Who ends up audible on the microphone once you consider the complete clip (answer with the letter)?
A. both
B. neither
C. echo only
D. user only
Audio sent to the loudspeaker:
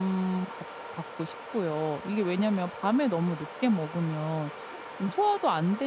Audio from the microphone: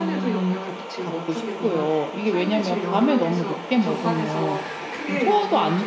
A